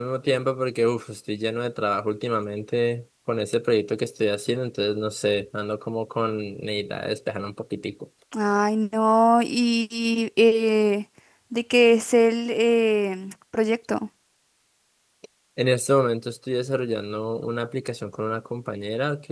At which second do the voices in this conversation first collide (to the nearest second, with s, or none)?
none